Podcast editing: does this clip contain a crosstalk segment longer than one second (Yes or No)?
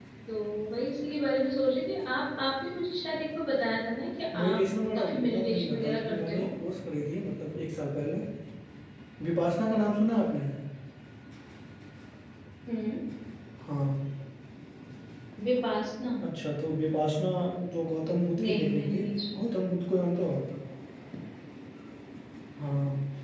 Yes